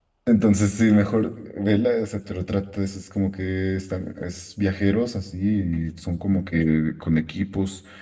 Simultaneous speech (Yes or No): No